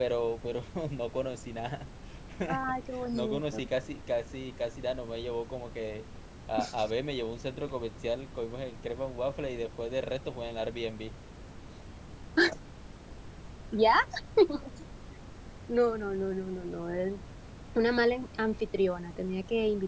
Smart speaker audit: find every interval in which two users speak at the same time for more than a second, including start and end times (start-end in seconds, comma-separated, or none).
none